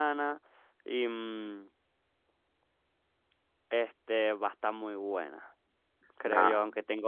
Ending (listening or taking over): listening